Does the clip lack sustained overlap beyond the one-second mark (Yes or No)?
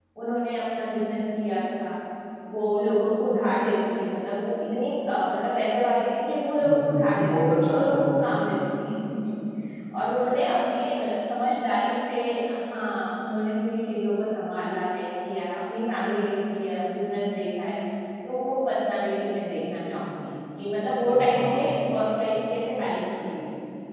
No